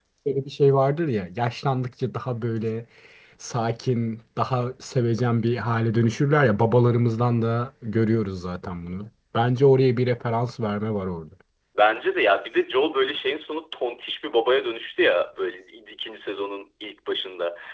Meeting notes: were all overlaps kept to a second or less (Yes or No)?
Yes